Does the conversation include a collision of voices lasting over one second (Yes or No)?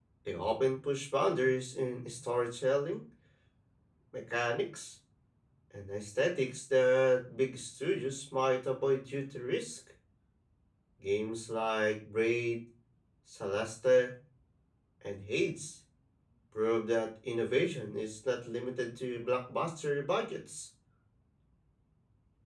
No